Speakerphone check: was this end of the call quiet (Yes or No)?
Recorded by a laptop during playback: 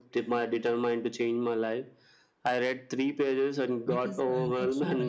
No